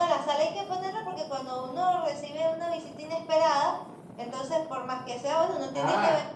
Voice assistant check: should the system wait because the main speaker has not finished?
No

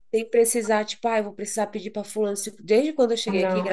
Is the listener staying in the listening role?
Yes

